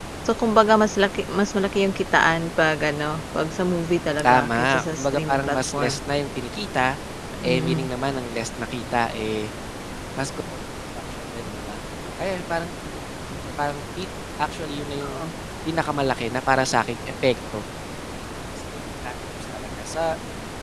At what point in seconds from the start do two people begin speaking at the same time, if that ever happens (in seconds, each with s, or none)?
4.2 s